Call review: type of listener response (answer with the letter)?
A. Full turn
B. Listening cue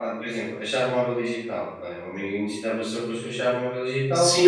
A